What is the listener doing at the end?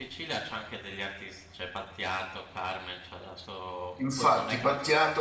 taking over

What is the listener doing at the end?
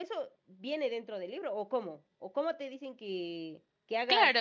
taking over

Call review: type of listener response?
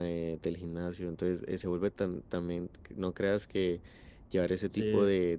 listening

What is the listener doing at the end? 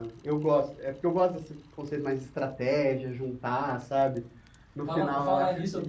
taking over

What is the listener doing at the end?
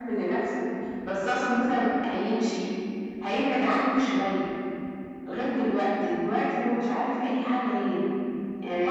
taking over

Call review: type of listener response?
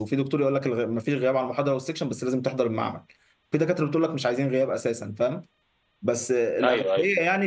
listening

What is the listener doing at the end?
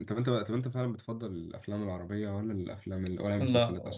taking over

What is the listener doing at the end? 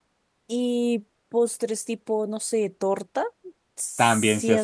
taking over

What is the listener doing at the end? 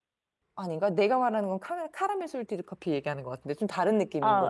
taking over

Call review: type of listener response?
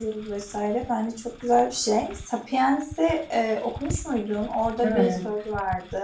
listening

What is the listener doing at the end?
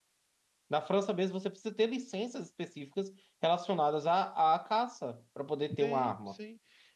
taking over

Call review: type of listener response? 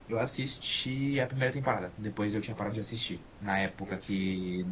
listening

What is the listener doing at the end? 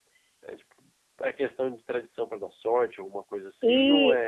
taking over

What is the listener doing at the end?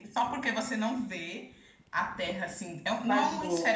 listening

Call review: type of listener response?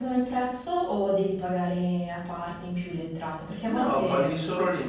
taking over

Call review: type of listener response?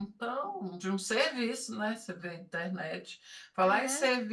listening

